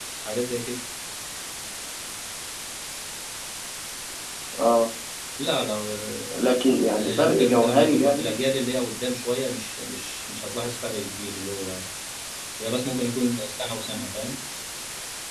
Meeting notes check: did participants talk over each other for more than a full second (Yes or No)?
Yes